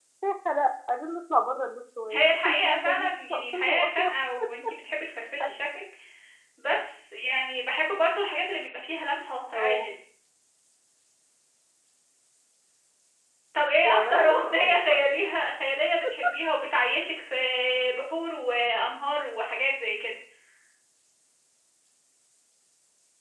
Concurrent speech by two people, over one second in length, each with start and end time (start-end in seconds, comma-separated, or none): 2.1-4.1, 13.8-15.1